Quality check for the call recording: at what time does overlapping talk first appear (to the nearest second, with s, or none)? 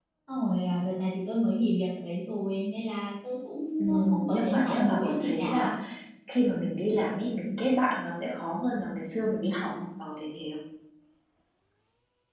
4 s